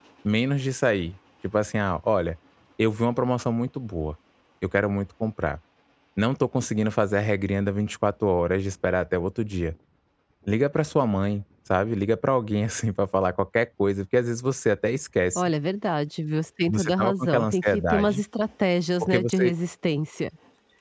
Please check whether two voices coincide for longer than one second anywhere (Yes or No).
Yes